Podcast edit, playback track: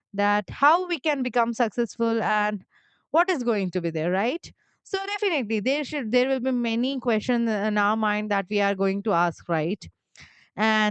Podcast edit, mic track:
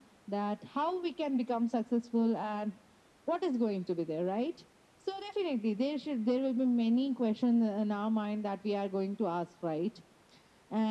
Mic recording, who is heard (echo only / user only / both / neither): echo only